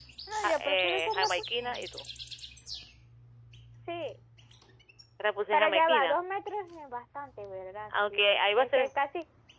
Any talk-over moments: Yes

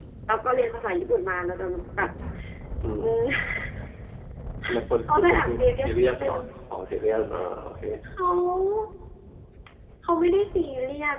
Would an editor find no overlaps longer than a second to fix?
No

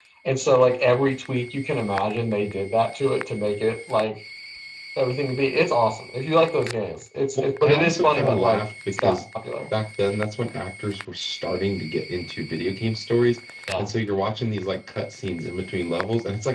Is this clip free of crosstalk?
No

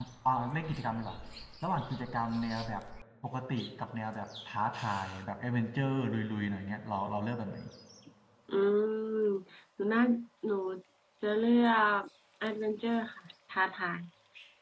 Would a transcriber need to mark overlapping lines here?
No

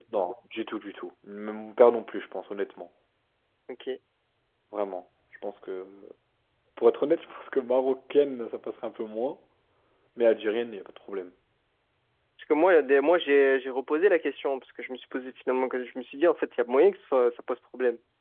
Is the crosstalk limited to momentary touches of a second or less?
Yes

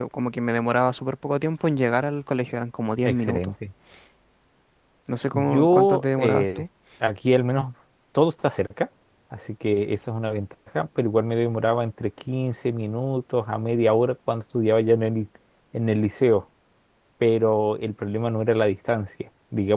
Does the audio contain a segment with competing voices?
Yes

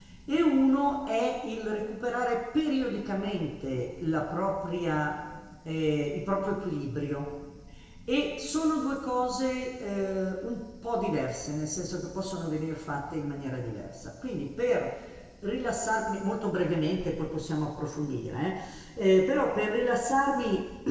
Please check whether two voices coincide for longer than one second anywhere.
No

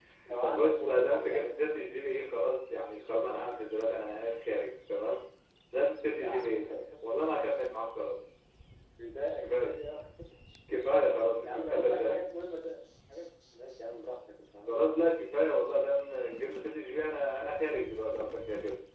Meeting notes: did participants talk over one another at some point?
Yes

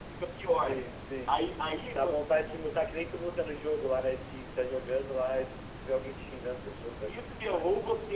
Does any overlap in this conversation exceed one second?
No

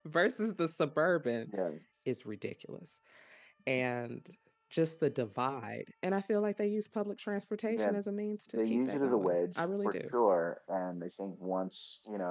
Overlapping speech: Yes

